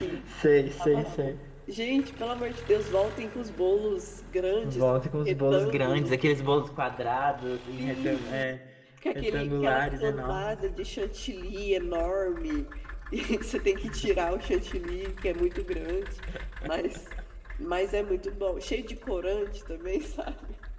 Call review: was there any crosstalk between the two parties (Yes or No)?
Yes